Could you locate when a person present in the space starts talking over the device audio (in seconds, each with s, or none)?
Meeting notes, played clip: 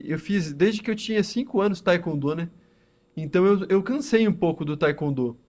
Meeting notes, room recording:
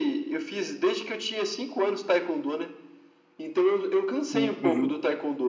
4.3 s